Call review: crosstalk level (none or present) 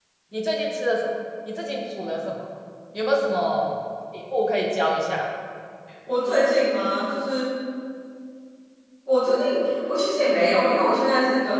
none